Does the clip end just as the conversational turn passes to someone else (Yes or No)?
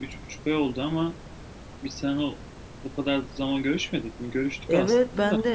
Yes